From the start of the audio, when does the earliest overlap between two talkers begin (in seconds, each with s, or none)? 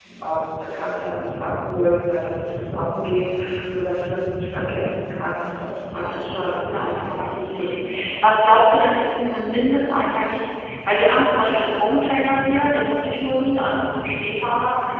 5.8 s